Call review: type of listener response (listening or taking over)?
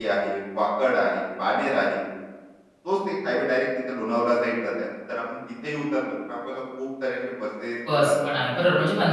taking over